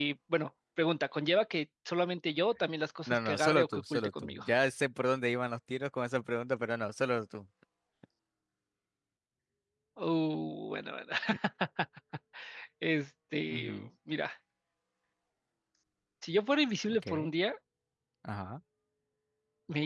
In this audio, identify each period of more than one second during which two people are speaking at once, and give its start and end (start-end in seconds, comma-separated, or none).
3.1-4.4